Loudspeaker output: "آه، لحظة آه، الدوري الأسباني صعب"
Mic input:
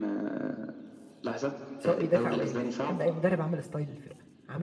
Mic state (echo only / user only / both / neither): both